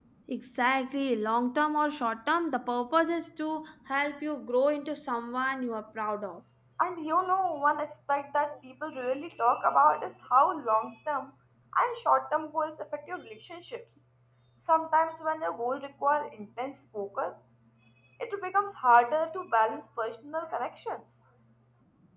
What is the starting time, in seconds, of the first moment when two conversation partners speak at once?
none

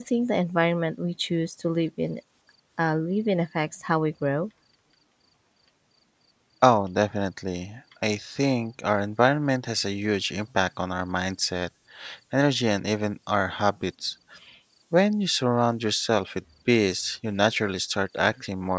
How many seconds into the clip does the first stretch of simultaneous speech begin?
none

